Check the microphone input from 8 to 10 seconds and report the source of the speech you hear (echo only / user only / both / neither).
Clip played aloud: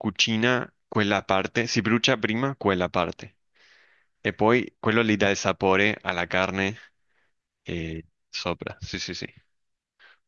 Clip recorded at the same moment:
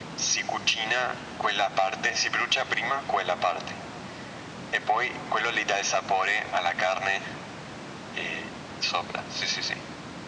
echo only